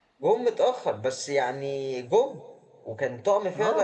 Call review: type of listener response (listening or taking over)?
taking over